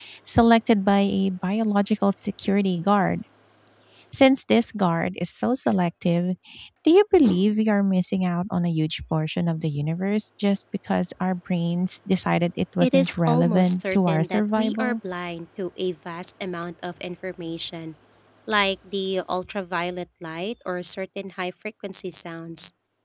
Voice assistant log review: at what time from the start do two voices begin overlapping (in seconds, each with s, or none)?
12.8 s